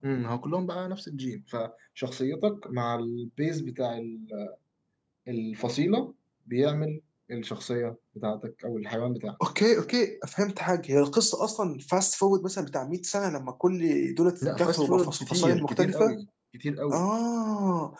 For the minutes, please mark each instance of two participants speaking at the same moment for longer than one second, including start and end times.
14.4-16.2

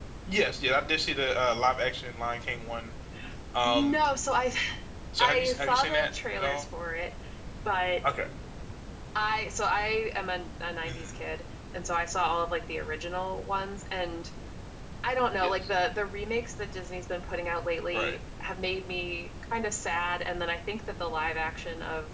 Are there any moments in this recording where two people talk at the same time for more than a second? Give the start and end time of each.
5.2-6.7

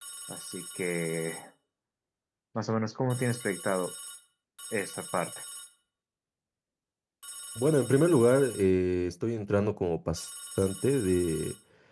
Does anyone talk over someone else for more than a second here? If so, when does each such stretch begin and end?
none

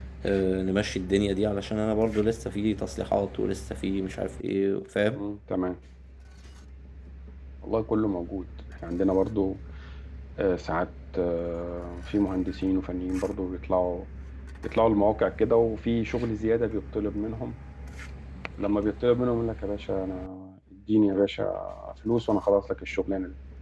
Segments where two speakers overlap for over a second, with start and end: none

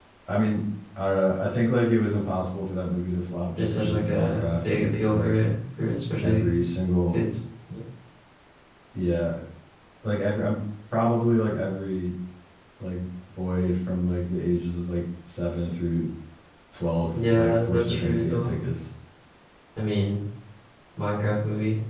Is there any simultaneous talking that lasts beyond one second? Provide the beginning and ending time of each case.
3.6-5.4, 17.1-18.5

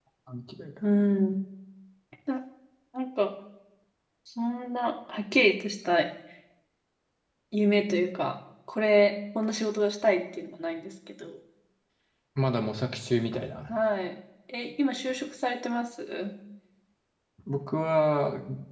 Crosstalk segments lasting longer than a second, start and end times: none

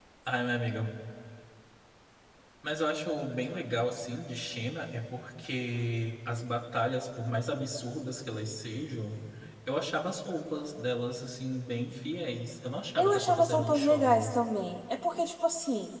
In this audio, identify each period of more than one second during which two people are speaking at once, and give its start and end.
13.0-14.3

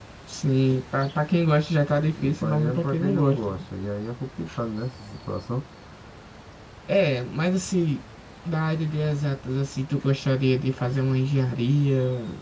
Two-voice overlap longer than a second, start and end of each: 2.2-3.6

